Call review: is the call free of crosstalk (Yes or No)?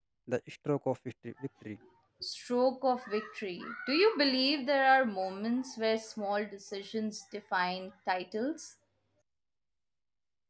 Yes